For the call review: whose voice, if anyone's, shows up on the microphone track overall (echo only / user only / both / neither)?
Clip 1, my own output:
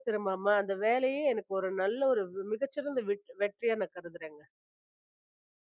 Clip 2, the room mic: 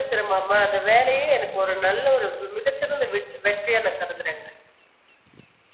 echo only